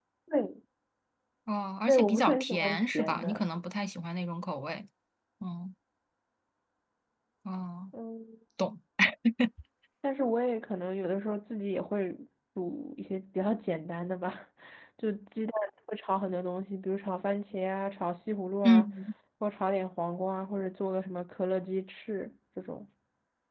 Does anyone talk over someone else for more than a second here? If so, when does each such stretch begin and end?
1.9-3.4

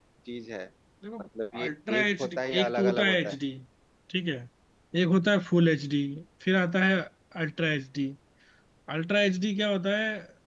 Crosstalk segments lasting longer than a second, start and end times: 1.6-3.4

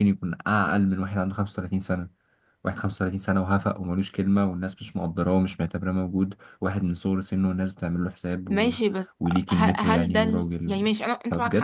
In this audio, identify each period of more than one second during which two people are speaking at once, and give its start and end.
9.5-10.8

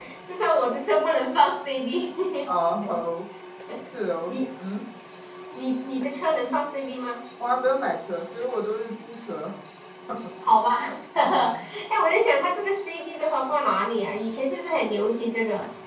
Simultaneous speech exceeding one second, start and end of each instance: none

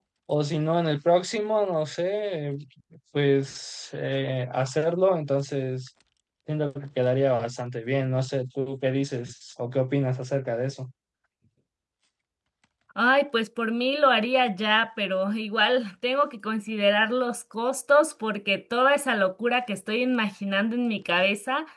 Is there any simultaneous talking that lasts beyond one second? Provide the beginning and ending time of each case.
none

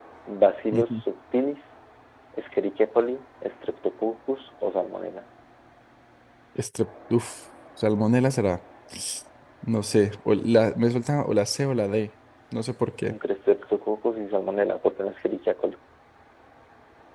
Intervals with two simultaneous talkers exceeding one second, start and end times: none

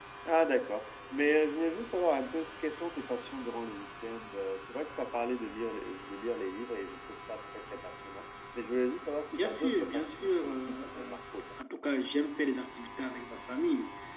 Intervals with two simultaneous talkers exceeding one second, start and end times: 9.3-11.2

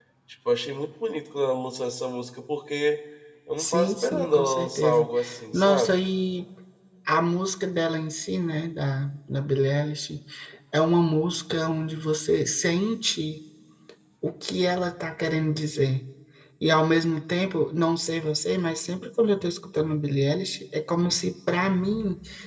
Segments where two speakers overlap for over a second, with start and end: 3.6-5.1

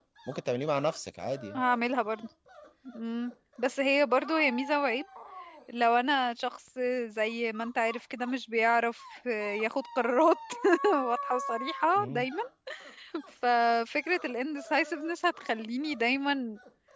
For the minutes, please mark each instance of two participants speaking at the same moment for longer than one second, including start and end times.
none

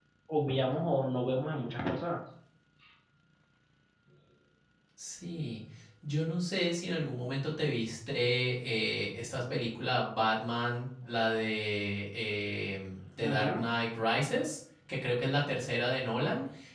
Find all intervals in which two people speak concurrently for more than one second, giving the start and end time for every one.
none

